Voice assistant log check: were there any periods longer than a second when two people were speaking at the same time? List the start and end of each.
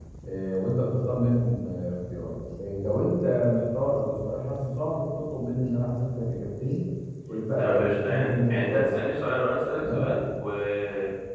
7.6-9.1

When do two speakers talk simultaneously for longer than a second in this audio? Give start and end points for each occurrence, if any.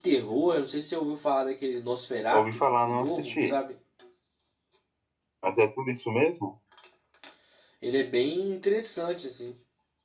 2.3-3.5

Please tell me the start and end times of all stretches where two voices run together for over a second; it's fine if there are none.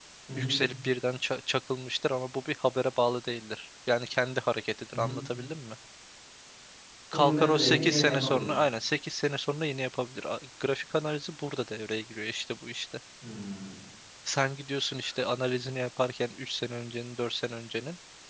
7.1-8.6

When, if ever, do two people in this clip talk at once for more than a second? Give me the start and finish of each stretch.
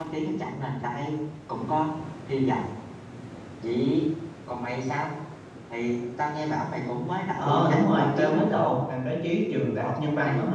7.4-8.8

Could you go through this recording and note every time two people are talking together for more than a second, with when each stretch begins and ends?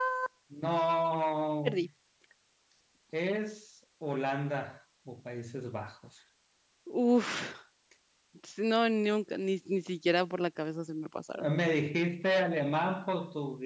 none

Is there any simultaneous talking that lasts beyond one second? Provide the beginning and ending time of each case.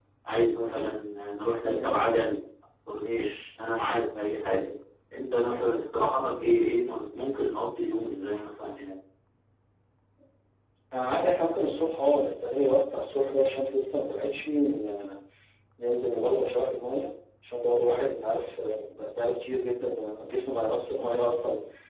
none

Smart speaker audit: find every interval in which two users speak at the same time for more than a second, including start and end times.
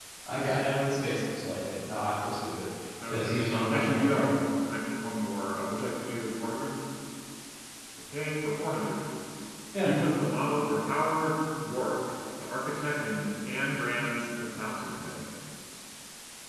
3.1-4.5

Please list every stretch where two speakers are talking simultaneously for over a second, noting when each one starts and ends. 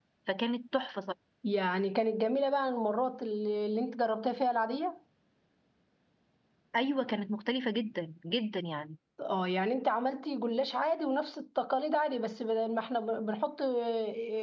none

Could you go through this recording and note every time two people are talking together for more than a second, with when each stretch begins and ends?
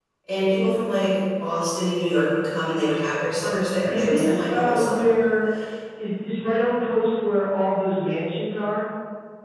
3.9-5.1

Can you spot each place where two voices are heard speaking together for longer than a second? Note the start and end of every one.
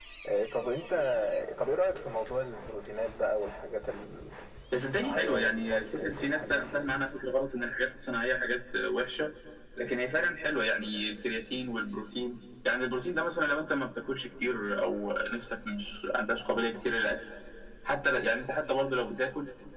4.9-7.1

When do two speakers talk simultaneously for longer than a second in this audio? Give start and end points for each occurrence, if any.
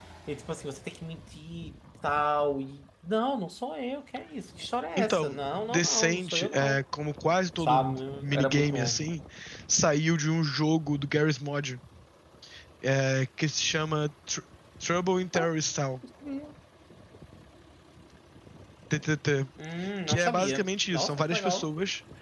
5.0-6.8, 7.6-9.0, 20.1-21.7

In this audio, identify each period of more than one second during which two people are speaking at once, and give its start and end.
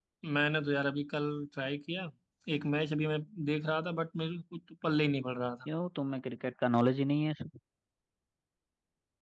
none

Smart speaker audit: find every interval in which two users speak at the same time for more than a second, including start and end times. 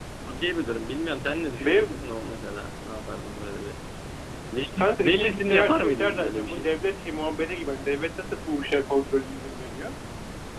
4.8-6.7

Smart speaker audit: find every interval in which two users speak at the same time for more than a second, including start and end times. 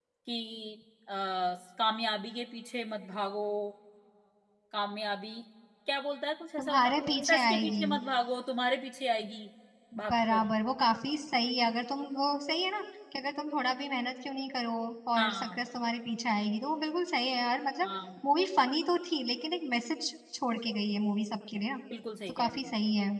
6.6-7.8

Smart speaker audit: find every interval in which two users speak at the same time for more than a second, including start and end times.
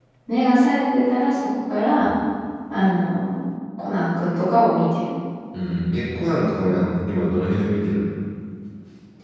none

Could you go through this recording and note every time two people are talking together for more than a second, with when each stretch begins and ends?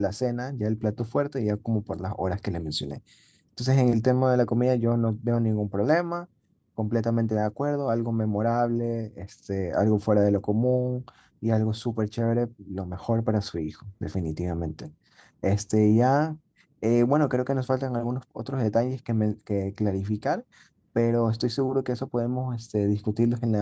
none

